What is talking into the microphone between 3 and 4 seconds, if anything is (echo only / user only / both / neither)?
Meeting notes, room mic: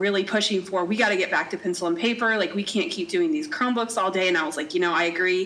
echo only